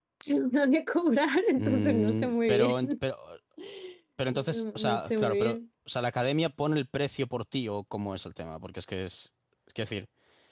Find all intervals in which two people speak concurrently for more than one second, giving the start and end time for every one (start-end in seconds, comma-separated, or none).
1.6-2.9, 4.3-5.6